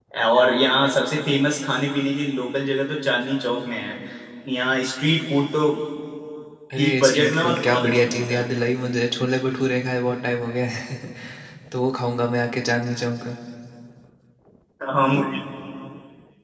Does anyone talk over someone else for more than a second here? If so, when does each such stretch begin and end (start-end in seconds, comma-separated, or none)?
6.7-8.4